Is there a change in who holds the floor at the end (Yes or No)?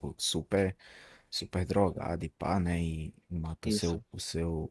No